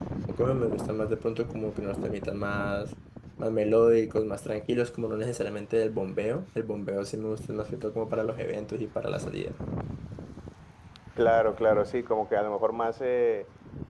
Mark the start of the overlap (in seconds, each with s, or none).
none